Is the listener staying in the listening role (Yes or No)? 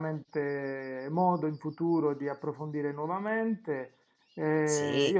Yes